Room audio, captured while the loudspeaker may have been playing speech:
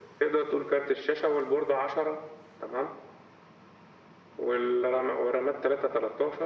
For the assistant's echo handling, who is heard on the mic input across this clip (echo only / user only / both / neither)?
echo only